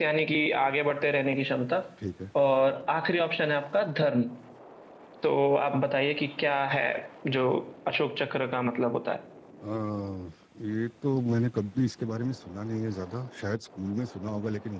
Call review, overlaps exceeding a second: none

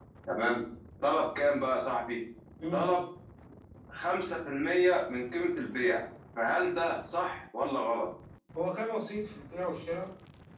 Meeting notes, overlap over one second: none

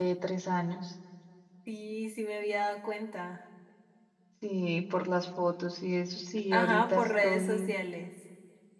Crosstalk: present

